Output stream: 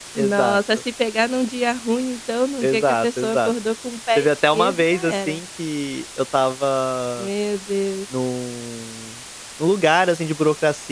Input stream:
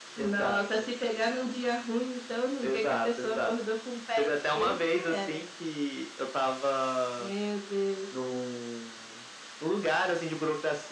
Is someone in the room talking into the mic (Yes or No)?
No